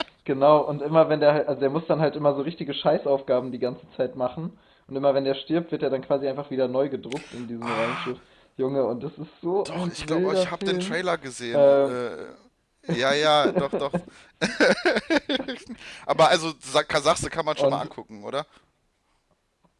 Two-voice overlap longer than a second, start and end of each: 9.7-11.0

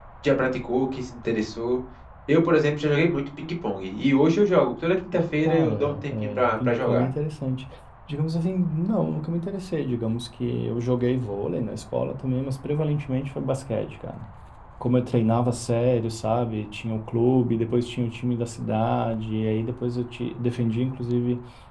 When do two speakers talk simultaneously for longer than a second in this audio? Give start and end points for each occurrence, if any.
5.4-7.1

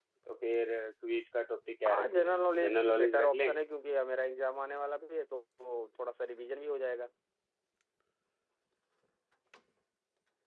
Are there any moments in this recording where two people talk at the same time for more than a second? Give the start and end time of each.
1.9-3.6

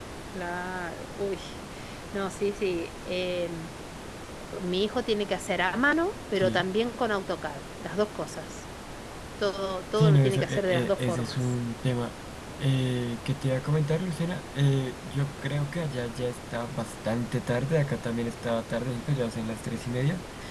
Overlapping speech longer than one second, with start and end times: 10.0-11.5

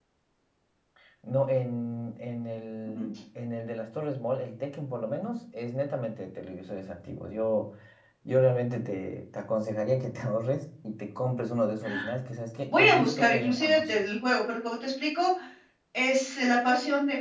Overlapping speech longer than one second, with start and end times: 12.7-14.0

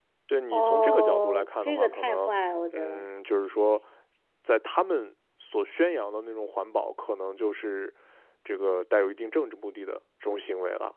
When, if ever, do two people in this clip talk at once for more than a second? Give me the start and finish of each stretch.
0.5-2.3

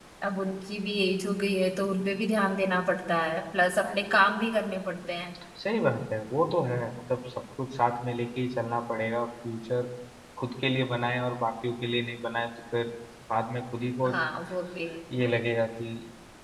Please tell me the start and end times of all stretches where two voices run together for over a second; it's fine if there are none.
none

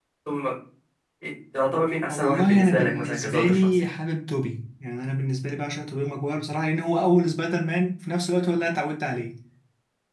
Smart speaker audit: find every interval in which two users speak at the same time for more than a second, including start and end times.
2.0-3.8

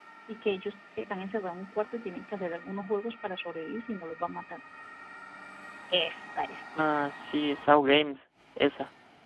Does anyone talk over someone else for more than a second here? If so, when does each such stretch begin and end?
none

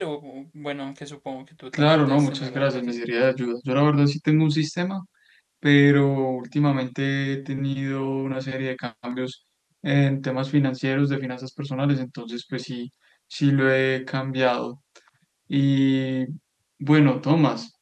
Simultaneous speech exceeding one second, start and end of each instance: 1.8-3.0

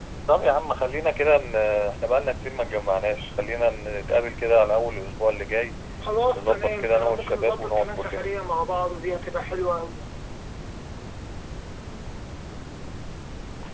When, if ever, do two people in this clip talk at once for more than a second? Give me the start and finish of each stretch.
6.3-8.3

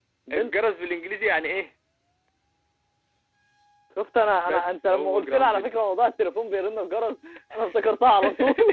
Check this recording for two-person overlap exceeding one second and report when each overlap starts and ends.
4.5-5.7

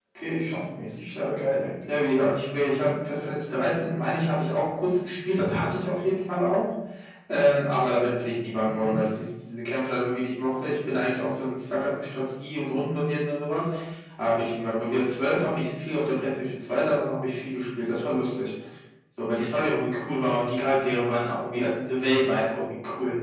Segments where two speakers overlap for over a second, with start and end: none

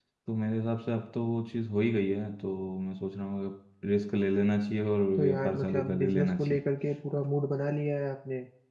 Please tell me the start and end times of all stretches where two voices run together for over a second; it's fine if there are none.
5.2-6.6

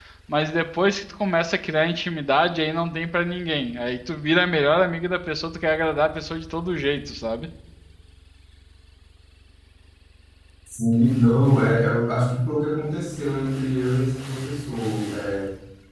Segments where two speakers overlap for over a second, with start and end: none

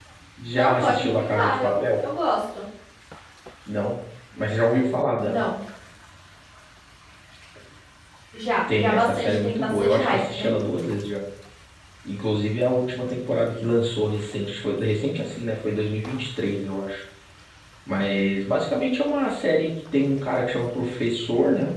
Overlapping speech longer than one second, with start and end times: 0.5-2.0, 8.7-10.5

